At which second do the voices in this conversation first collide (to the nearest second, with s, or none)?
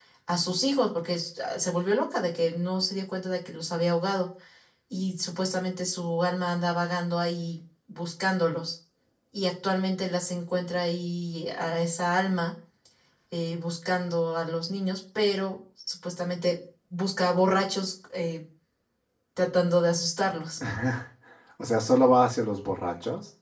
none